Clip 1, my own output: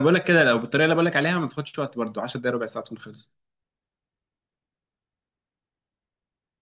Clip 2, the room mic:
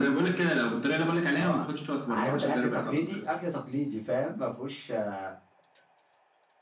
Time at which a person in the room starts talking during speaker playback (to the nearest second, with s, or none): 1 s